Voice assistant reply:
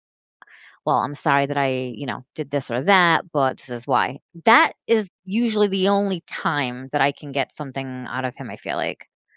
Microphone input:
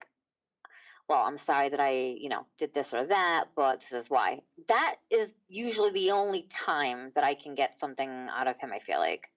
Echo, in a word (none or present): present